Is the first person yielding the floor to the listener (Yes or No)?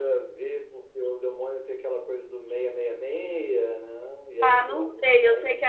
Yes